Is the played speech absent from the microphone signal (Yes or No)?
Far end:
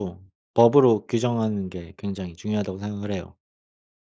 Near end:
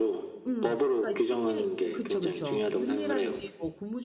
No